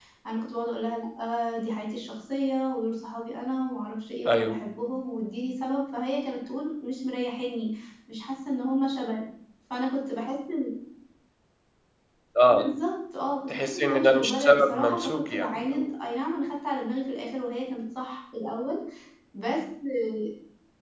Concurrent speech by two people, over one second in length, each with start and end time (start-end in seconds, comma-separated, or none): 13.5-15.9